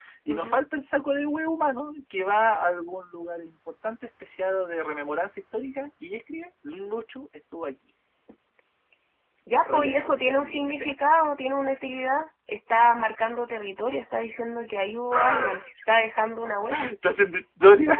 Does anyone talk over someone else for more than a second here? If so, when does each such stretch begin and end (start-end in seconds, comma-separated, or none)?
9.7-10.9